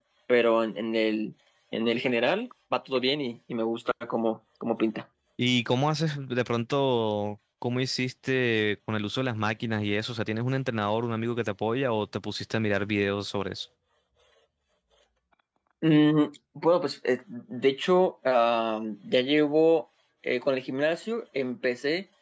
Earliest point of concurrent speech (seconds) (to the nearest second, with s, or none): none